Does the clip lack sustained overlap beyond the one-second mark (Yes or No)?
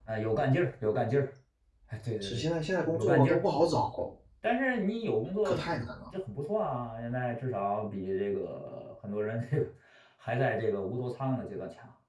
Yes